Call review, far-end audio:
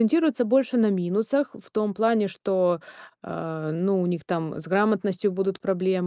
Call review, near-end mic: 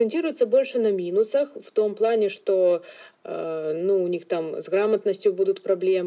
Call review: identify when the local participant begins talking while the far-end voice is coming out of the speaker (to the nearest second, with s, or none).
none